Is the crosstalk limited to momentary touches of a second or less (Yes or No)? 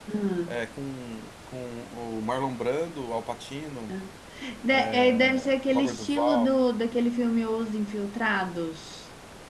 No